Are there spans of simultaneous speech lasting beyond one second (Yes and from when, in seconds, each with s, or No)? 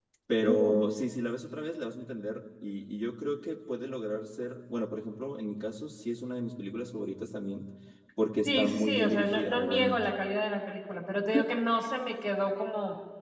Yes, from 8.4 s